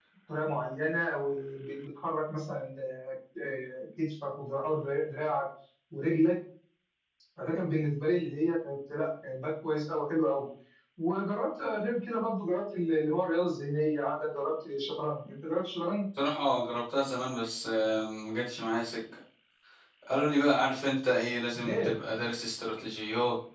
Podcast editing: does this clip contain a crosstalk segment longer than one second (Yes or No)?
No